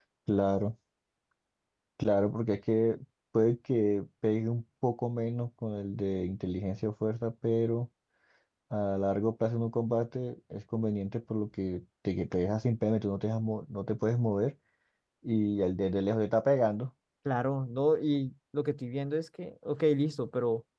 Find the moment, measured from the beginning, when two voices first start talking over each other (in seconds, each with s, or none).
none